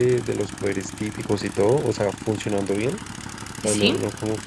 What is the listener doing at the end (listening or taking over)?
listening